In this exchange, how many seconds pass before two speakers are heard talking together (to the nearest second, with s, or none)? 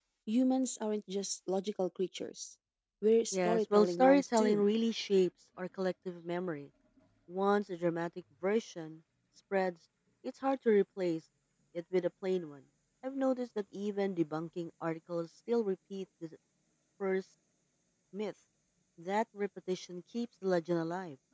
3 s